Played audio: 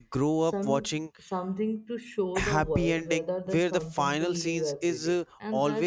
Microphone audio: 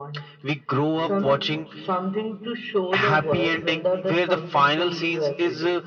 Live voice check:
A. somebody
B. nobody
B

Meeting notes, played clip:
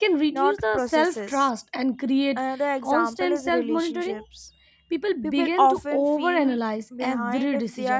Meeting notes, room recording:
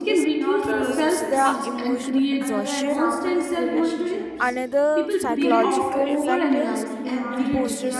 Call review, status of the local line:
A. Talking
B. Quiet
A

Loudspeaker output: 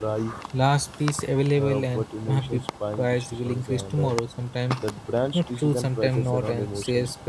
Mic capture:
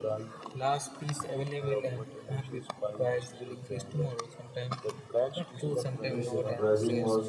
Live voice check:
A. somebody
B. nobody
A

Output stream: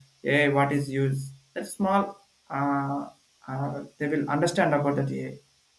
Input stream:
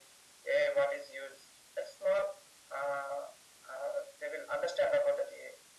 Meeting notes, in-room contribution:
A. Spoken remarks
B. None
B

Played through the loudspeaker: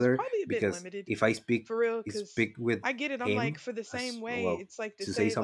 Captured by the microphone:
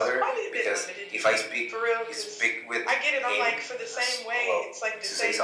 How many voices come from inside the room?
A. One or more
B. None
B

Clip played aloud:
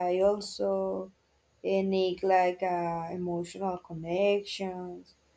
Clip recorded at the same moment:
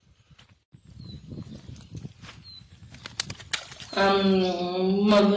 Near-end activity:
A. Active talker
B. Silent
A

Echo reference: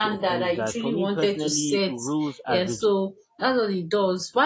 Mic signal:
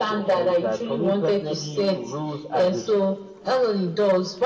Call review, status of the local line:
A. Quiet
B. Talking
A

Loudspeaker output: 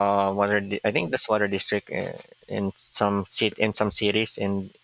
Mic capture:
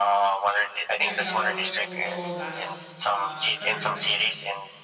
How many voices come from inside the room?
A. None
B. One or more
B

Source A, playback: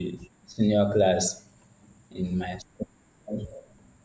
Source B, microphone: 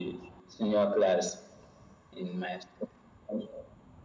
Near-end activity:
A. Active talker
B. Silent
B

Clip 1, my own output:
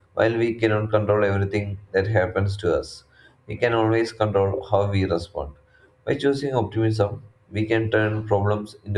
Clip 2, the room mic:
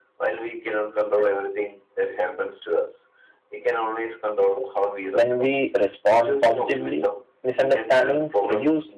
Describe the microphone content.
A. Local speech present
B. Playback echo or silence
A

